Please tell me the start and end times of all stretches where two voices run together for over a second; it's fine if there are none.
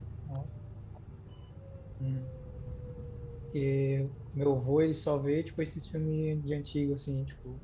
none

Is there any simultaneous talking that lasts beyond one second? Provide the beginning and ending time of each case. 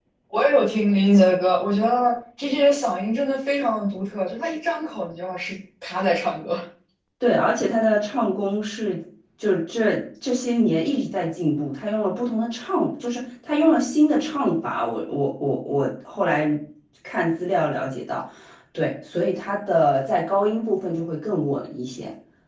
none

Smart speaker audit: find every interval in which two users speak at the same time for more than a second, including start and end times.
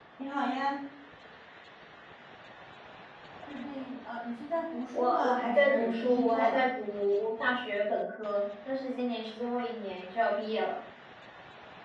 5.0-6.6

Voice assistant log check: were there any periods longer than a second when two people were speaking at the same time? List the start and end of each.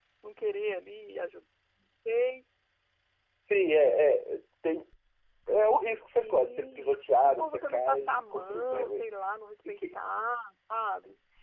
6.0-9.0

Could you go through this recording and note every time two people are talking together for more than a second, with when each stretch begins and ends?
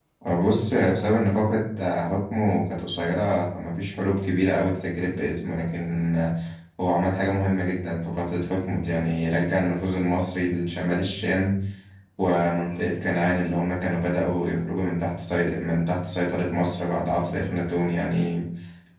none

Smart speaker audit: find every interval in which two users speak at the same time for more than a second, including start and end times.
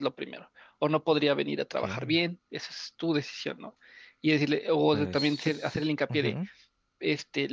4.9-6.3

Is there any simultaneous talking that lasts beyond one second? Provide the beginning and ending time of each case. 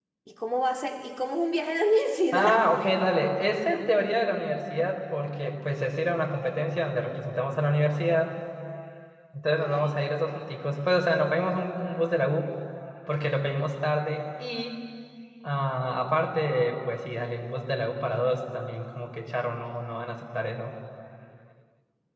none

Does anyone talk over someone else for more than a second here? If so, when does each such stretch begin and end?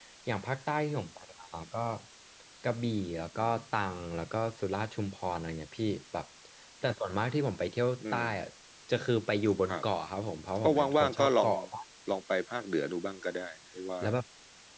10.3-11.5

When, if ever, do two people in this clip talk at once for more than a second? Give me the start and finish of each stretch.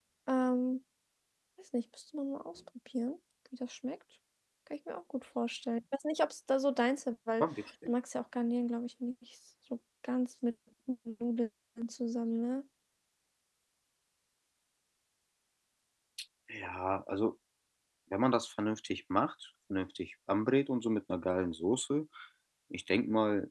none

